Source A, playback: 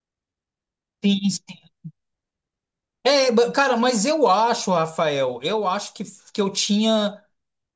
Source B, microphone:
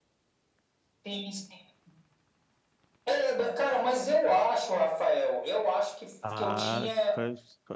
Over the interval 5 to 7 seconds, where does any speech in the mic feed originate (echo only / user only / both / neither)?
both